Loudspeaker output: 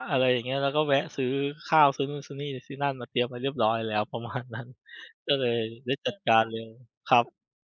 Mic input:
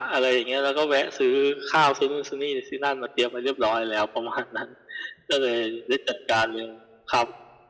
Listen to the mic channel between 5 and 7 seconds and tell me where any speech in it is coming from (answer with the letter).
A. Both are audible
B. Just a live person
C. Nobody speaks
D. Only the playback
D